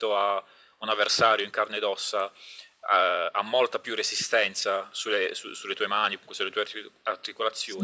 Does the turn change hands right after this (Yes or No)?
No